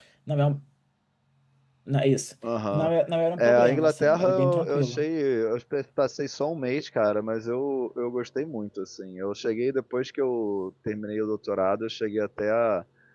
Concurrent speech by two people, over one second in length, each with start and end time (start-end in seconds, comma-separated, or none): 3.4-5.0